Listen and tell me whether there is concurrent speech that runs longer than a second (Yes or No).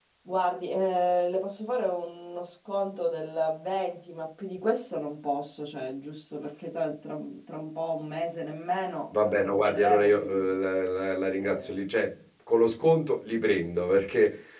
Yes